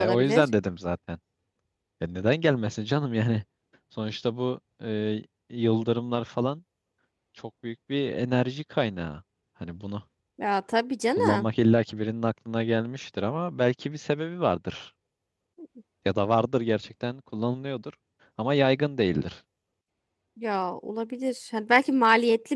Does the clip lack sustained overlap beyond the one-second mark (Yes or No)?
Yes